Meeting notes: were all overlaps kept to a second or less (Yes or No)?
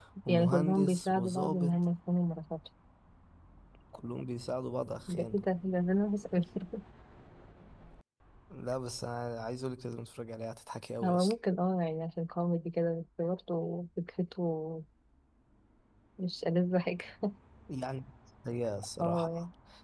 No